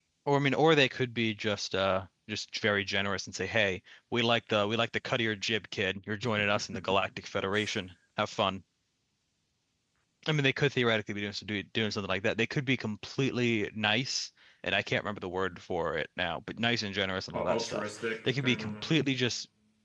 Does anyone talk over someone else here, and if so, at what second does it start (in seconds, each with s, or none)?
17.3 s